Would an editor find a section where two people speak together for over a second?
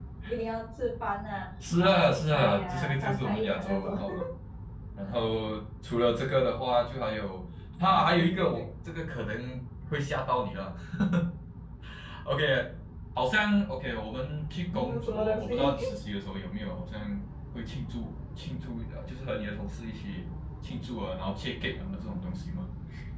Yes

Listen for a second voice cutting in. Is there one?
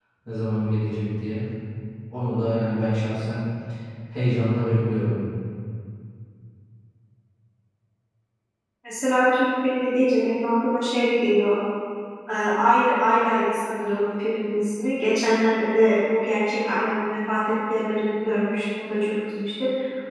No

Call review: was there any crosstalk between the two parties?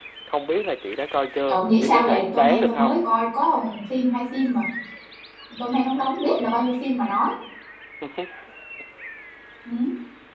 Yes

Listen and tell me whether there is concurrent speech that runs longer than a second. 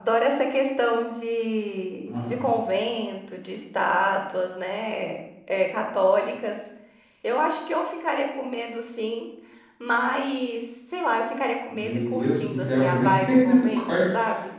Yes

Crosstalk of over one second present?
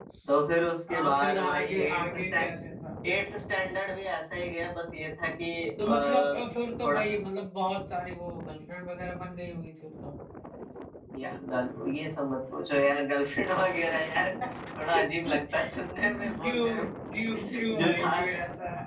Yes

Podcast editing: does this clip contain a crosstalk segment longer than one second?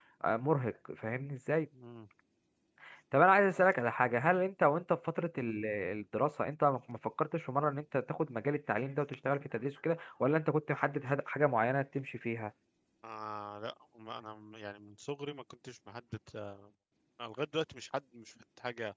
No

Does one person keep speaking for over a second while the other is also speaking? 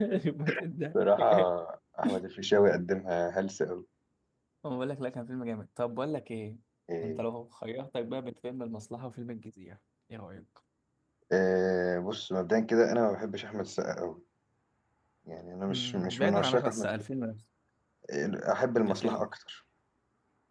Yes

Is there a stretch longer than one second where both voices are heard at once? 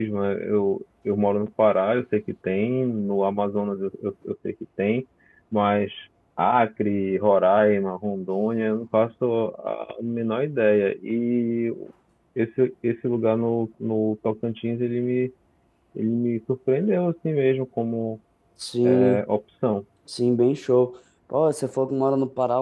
No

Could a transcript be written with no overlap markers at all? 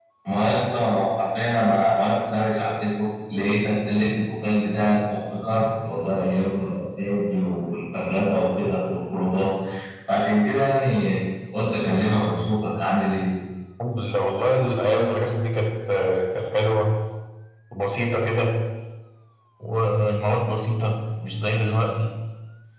Yes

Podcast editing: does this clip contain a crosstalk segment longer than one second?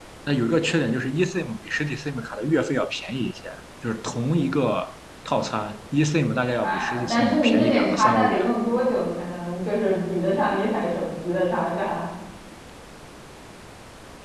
Yes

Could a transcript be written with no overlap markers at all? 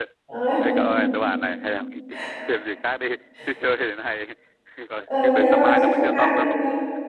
No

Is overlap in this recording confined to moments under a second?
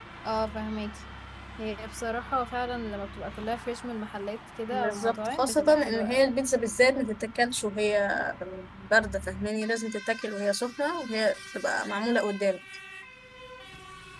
No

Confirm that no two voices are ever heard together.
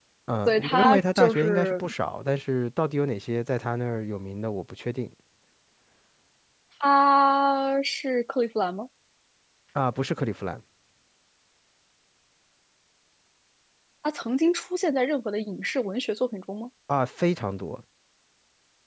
No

